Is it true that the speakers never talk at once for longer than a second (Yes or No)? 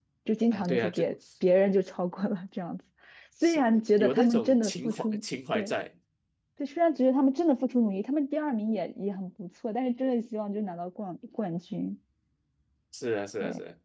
No